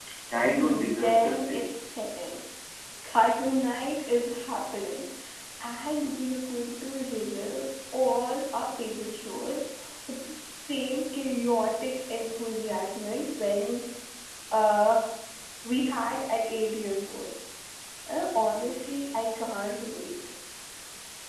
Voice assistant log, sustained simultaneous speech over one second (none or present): present